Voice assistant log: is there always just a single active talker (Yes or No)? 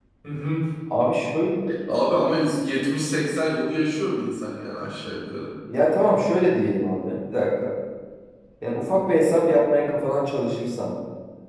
Yes